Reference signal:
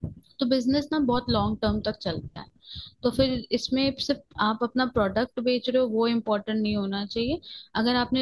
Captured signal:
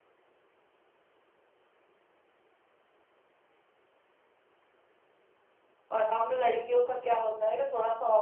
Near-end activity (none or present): present